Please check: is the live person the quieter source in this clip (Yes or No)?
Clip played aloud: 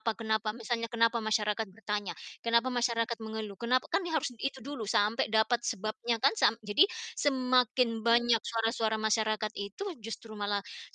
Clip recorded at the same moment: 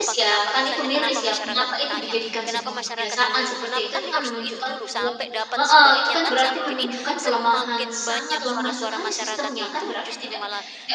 No